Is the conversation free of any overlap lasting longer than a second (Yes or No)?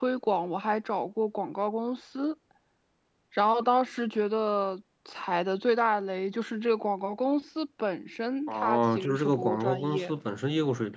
No